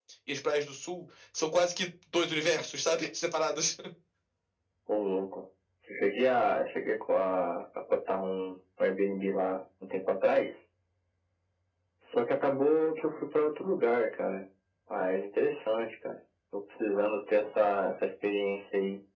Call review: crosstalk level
none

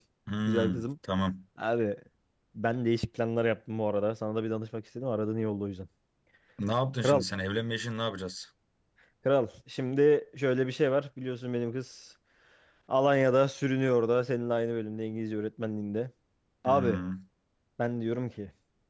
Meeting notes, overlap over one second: none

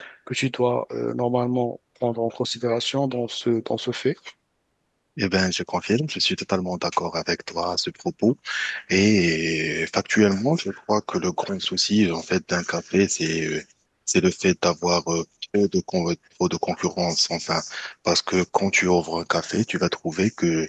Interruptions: none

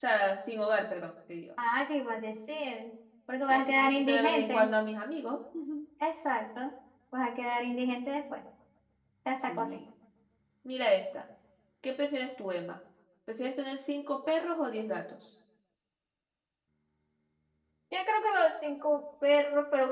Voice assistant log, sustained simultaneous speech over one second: present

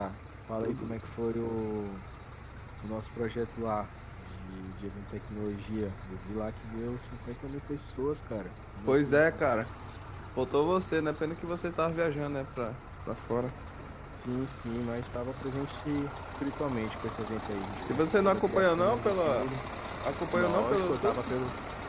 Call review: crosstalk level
present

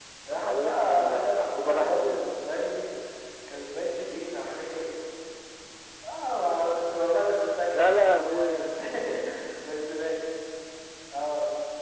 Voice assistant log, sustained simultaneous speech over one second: present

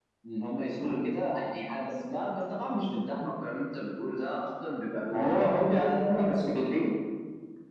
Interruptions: present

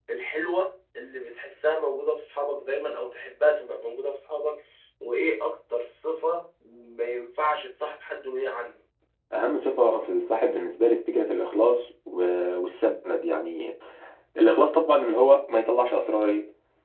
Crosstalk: none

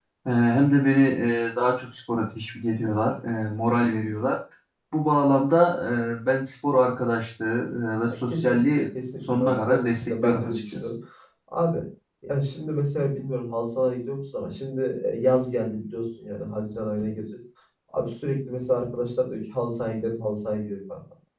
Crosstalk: present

